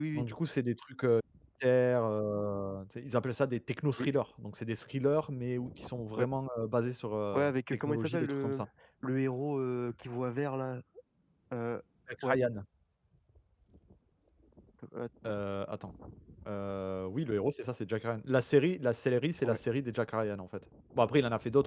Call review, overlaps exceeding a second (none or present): present